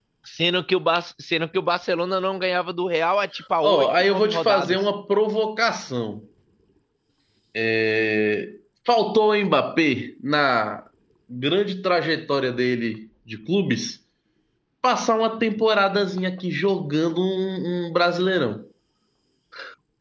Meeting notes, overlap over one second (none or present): present